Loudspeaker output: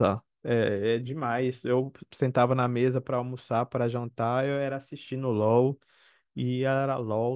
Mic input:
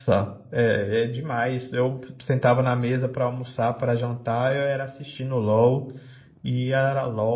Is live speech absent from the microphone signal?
Yes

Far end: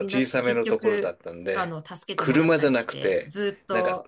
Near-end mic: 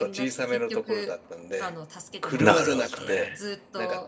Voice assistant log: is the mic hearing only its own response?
No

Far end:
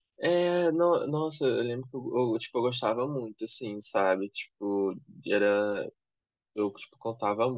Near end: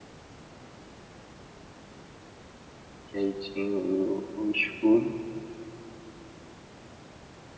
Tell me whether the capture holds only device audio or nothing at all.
No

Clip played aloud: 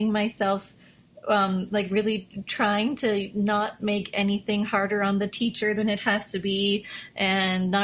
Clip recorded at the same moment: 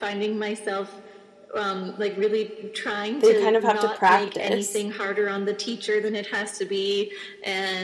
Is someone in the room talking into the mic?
Yes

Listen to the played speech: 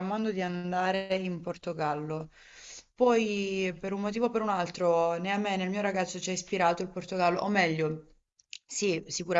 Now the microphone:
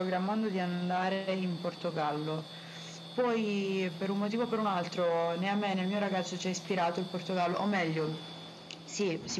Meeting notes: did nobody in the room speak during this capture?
Yes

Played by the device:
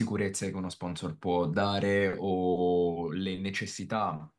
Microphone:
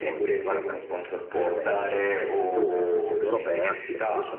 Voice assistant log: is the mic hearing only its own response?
No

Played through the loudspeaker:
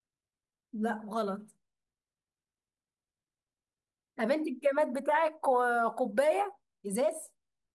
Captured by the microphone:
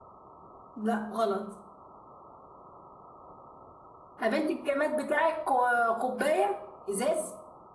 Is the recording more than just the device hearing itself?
No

